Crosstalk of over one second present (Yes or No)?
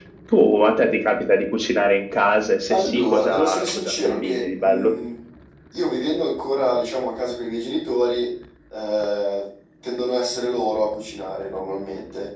Yes